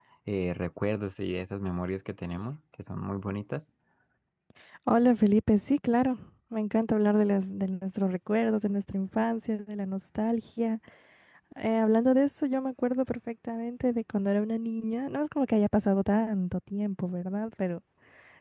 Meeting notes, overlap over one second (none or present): none